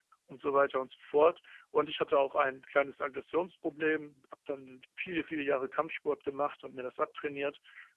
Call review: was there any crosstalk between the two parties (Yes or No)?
No